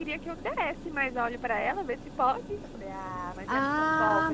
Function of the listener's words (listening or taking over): taking over